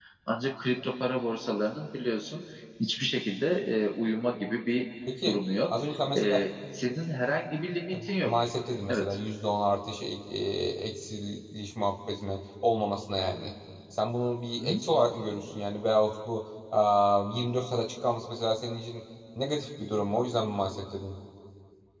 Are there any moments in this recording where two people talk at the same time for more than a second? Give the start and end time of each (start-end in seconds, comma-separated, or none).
none